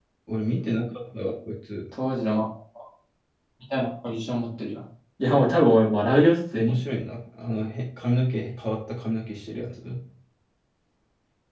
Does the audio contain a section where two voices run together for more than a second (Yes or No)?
No